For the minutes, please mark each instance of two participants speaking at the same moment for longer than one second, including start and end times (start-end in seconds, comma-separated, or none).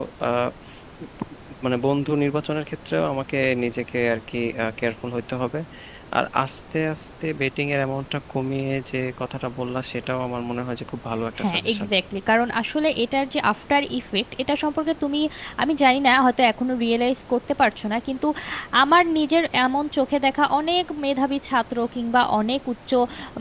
none